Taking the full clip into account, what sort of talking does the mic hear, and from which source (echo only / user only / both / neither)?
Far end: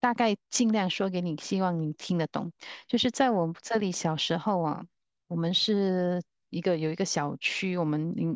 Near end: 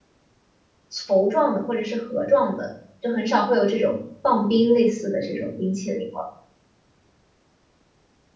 user only